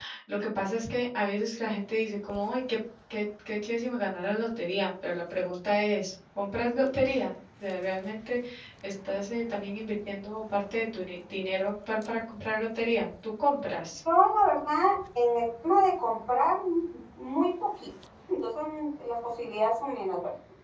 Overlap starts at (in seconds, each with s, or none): none